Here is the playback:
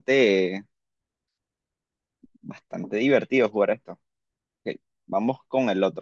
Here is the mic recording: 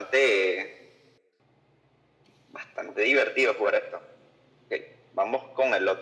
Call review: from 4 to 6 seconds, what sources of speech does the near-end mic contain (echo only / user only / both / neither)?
echo only